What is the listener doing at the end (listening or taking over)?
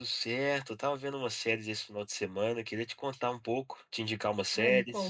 taking over